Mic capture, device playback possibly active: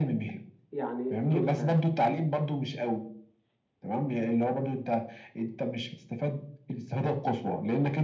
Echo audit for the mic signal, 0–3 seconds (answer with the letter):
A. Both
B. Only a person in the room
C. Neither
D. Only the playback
A